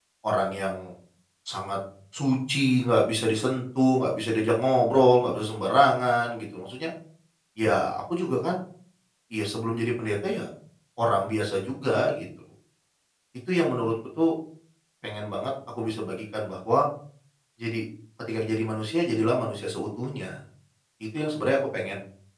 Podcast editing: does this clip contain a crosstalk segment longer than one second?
No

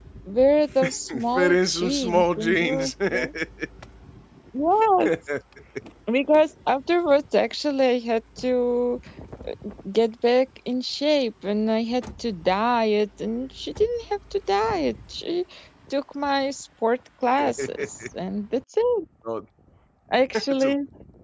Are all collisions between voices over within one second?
No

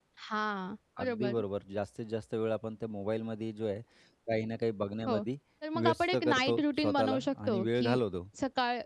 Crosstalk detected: Yes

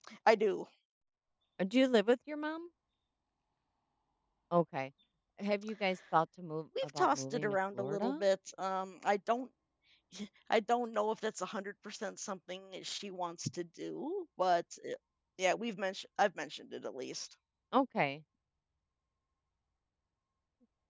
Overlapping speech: Yes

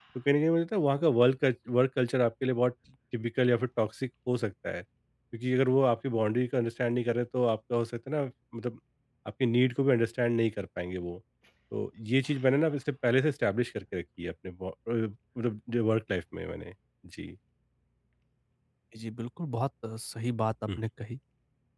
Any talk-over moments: No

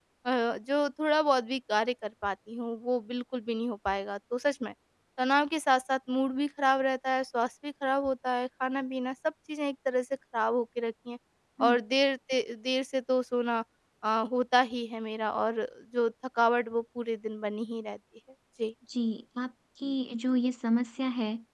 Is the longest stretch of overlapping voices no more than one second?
Yes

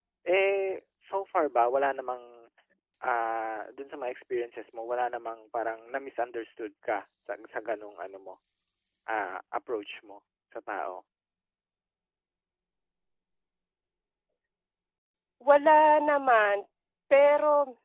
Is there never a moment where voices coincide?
Yes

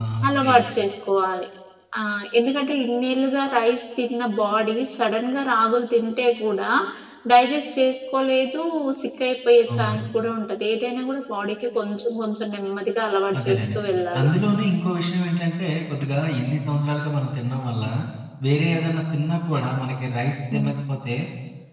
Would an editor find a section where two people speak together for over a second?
No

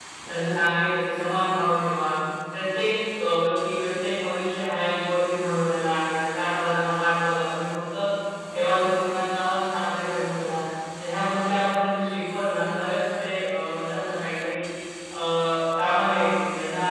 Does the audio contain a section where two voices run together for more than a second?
No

